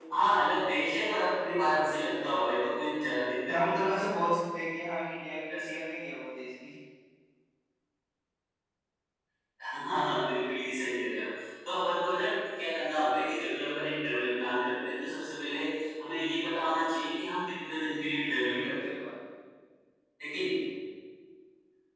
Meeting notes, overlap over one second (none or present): none